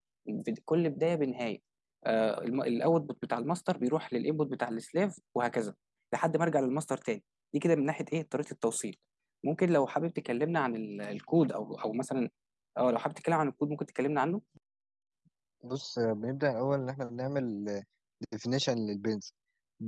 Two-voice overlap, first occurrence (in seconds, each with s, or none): none